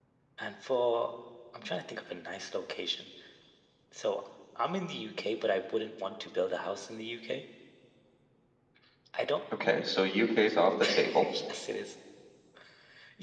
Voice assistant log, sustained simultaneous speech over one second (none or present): none